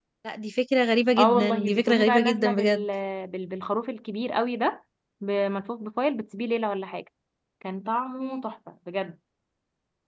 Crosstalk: present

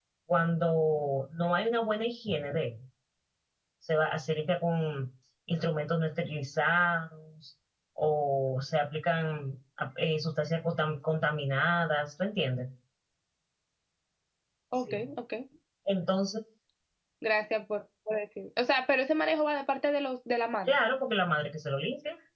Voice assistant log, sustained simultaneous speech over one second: none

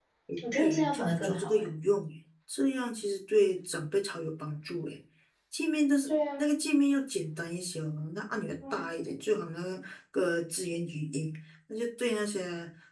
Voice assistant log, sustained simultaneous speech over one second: present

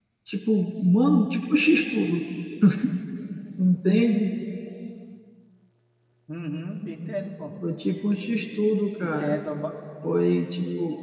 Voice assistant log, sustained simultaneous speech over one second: none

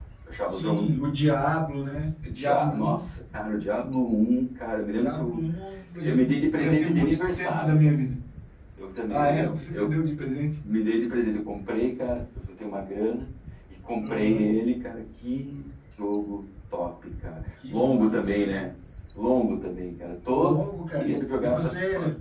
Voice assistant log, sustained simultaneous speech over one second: present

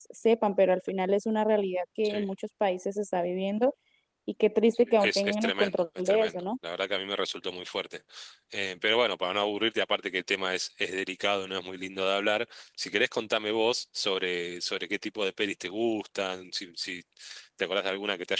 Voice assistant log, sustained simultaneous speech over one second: present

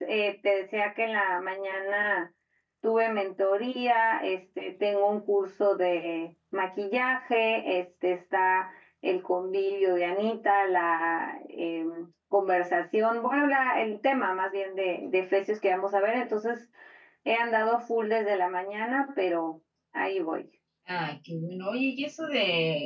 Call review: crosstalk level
none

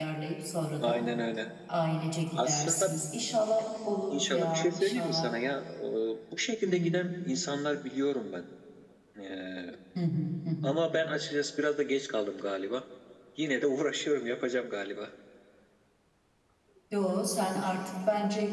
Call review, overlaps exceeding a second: present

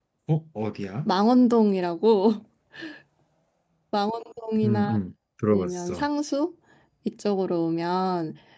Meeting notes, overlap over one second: none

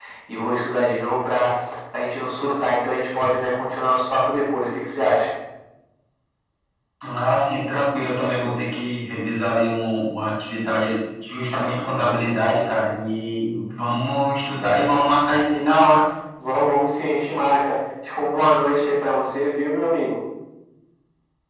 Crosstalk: none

